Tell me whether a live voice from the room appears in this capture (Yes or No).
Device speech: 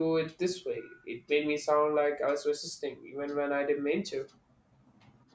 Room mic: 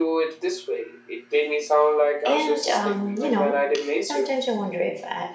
Yes